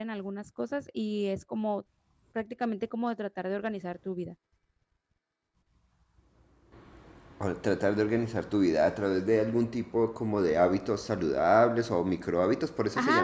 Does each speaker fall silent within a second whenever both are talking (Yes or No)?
Yes